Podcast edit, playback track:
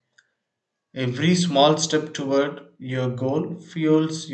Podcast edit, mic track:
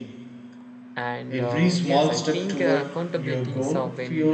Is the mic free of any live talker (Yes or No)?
No